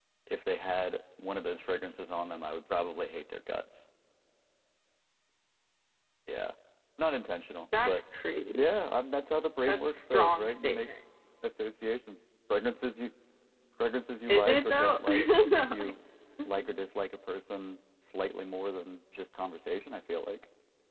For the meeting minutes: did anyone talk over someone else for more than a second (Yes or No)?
Yes